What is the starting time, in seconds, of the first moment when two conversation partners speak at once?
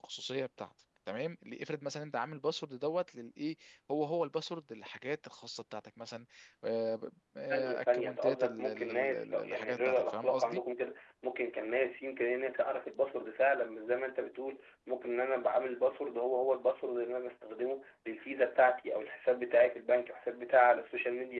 7.5 s

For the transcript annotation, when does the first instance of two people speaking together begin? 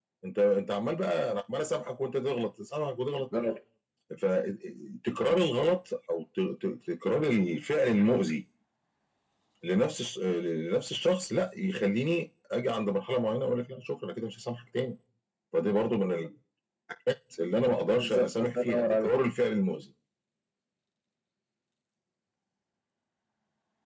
17.9 s

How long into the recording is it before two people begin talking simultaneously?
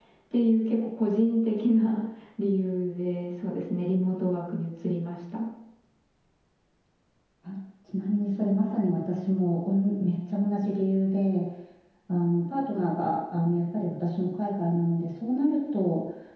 none

